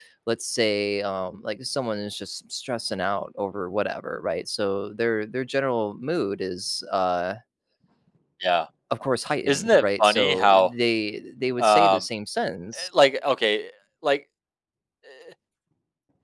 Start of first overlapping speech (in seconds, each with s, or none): 9.5 s